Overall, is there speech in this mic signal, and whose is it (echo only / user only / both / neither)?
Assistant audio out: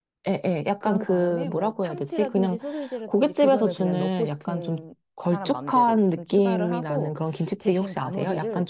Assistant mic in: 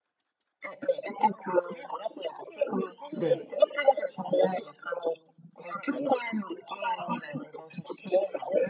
both